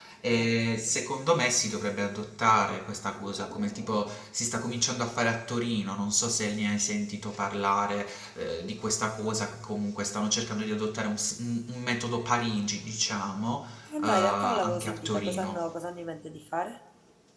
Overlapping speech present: Yes, from 14.0 s

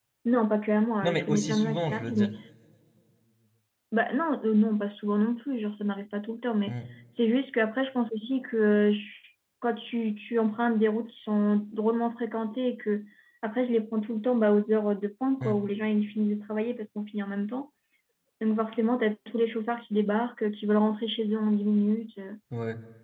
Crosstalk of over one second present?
Yes, from 1.0 s

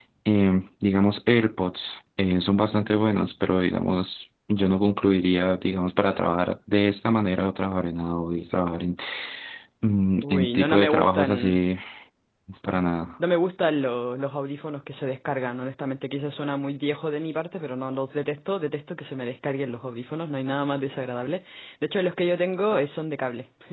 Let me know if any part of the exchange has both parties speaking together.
Yes, from 10.2 s

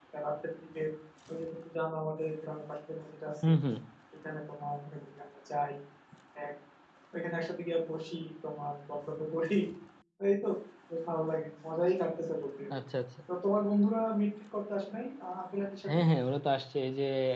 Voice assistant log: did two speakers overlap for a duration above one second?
No

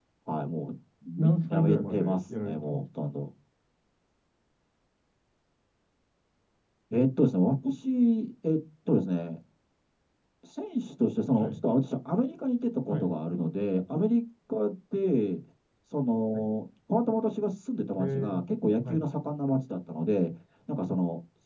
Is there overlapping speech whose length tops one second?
Yes, from 1.2 s

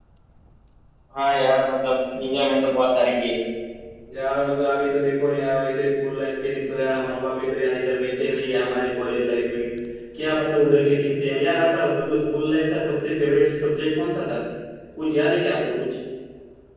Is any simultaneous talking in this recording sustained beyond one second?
No

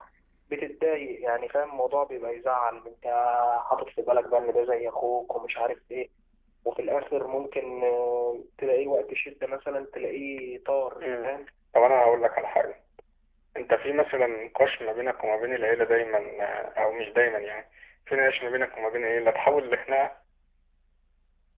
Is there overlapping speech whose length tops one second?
No

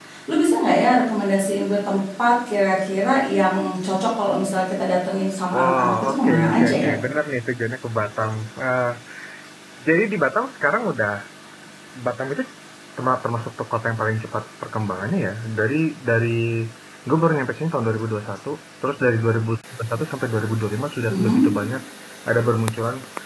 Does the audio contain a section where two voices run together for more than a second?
Yes, from 5.5 s

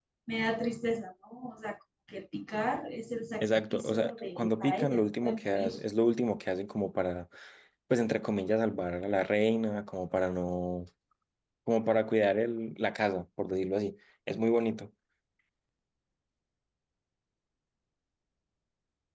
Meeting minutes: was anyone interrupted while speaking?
Yes, from 3.4 s

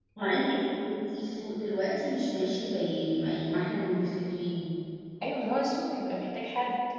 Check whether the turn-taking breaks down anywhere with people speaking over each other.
No

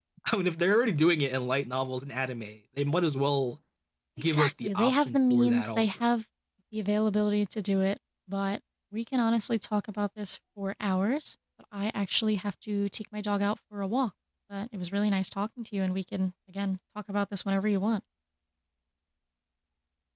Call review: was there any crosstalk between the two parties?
Yes, from 4.3 s

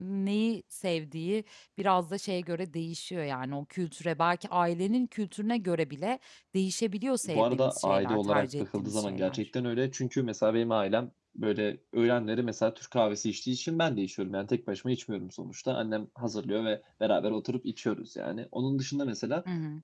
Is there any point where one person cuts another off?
Yes, from 7.2 s

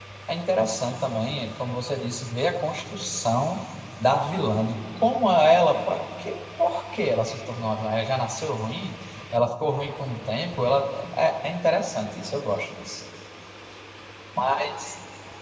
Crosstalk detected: No

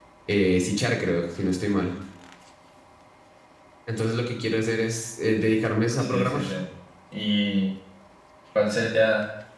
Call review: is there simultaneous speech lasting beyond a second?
No

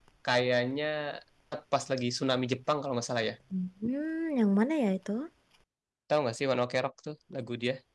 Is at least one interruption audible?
No

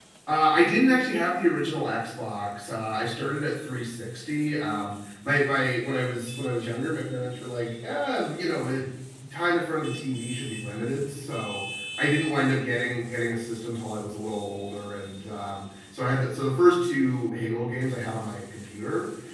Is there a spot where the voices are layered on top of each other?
No

